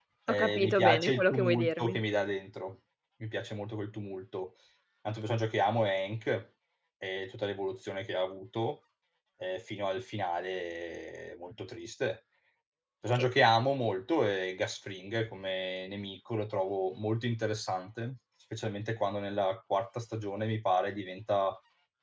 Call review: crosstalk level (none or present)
present